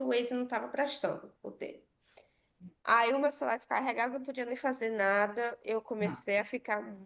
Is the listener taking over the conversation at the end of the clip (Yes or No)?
No